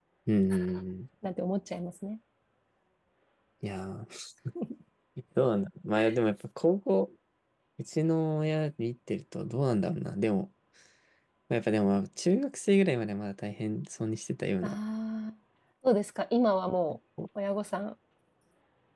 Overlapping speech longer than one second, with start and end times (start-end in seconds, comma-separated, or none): none